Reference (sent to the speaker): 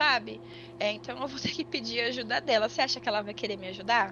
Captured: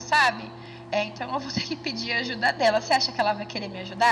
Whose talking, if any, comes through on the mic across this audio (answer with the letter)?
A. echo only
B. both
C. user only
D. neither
A